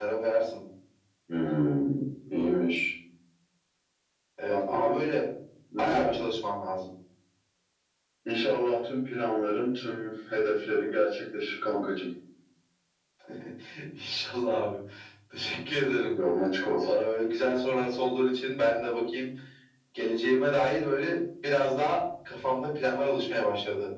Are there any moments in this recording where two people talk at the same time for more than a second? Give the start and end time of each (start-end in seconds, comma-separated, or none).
none